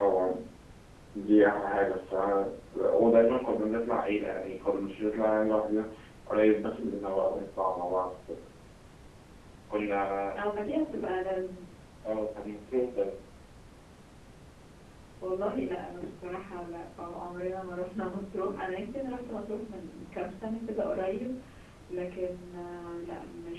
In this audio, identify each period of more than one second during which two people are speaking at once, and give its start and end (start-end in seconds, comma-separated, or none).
none